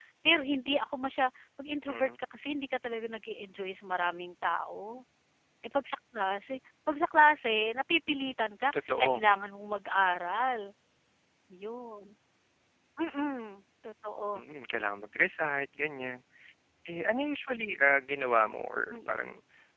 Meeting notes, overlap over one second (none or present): none